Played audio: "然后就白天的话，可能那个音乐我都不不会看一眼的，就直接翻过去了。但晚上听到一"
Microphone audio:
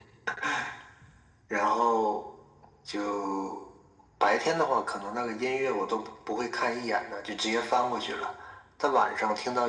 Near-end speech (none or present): none